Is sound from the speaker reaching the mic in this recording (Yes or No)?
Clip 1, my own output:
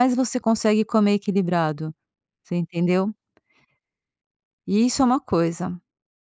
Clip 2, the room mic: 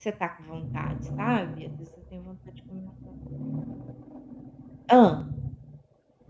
No